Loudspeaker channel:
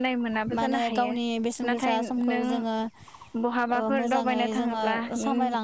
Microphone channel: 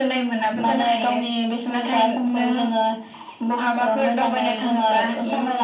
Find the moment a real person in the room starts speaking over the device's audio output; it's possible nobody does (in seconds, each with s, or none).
none